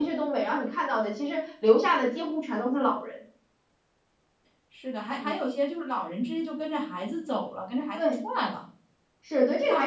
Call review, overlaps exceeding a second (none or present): none